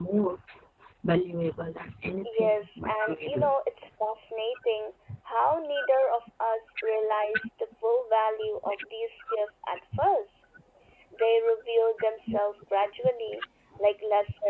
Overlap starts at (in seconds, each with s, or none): 2.2 s